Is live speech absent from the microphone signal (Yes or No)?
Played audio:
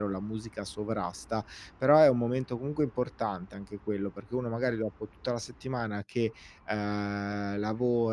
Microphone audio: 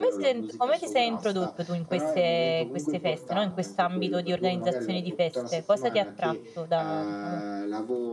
No